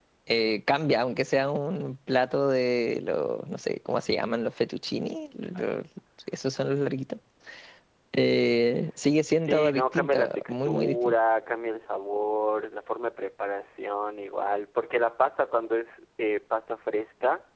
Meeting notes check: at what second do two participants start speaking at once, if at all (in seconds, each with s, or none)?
9.5 s